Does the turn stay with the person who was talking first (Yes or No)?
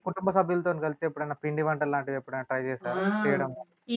No